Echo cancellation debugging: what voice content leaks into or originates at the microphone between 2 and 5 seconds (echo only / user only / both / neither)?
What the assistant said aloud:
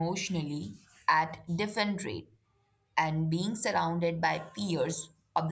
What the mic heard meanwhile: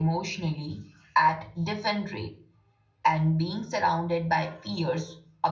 echo only